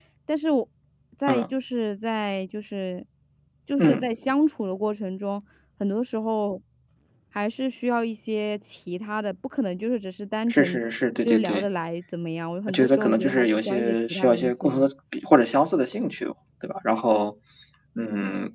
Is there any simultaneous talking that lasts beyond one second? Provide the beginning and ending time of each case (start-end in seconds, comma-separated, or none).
12.7-14.9